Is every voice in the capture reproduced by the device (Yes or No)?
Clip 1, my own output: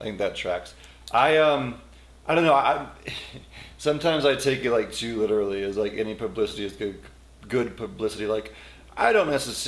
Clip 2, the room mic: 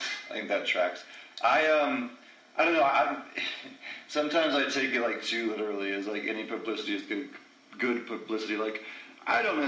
Yes